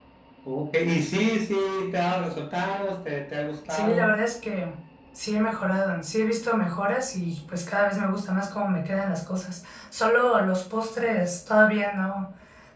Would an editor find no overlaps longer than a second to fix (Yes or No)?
Yes